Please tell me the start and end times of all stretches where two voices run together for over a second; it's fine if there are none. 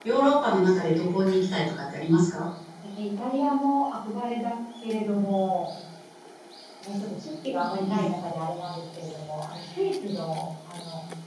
none

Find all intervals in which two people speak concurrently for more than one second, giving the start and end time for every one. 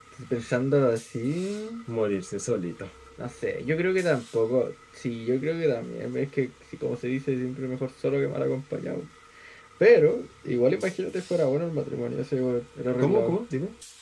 none

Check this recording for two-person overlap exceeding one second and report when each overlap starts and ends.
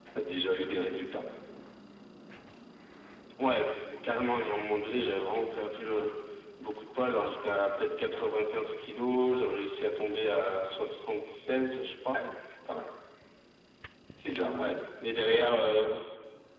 none

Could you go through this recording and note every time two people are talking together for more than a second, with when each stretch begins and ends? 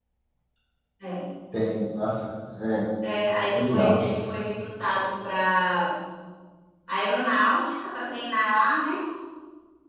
none

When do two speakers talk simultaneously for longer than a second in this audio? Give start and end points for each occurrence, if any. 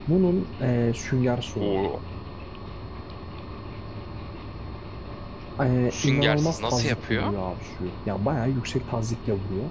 5.9-7.3

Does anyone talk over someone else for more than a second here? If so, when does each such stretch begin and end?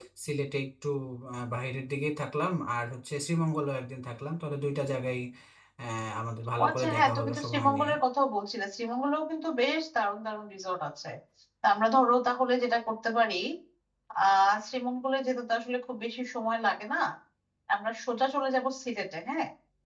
6.6-7.9

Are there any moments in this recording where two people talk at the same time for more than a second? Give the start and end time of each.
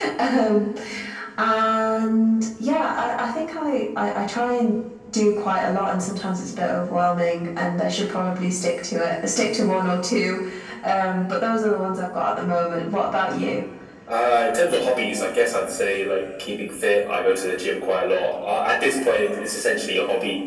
none

